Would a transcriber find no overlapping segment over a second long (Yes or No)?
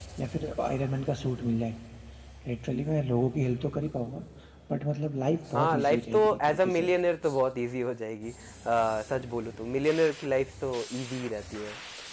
No